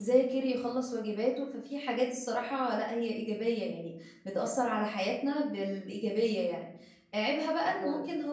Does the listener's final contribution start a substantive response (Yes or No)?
No